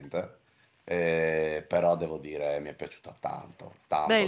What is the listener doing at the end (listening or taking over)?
taking over